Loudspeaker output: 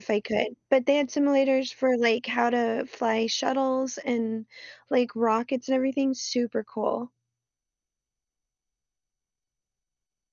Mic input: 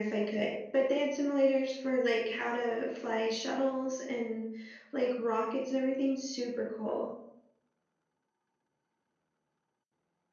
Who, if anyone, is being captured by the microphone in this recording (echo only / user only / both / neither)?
echo only